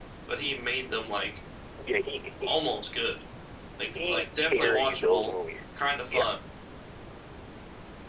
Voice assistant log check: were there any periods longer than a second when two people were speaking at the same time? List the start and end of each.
4.0-5.3

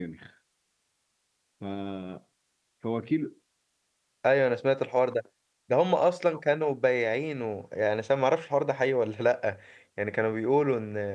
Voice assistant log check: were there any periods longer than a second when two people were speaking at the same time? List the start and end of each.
none

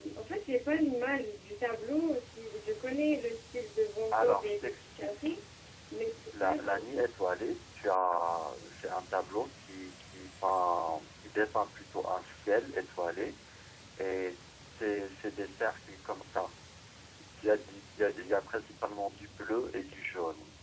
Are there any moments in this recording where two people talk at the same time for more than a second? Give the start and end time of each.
4.1-5.4

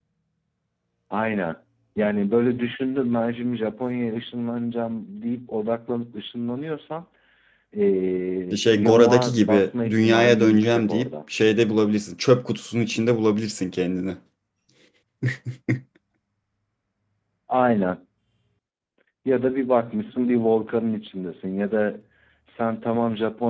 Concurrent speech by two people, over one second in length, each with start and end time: 8.5-11.1

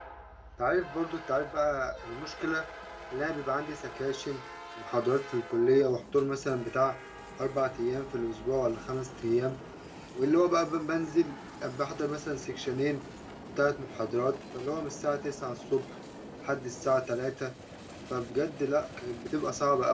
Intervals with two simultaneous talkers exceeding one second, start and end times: none

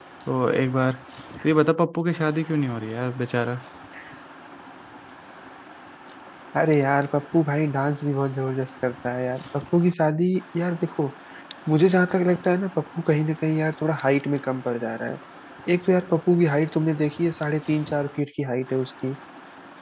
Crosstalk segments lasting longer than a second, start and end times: none

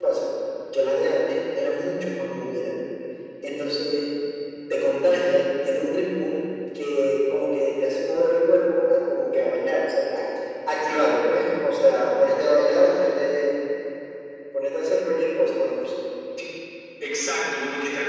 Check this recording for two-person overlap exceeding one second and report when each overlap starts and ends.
none

